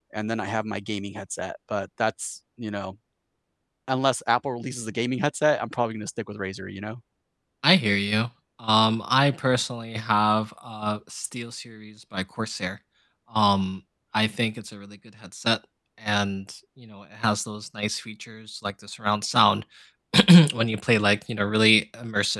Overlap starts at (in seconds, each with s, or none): none